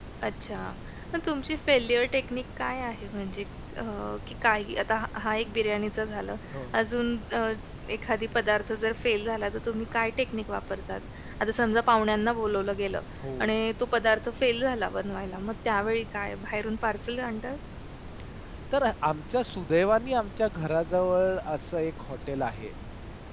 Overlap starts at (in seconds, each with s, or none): none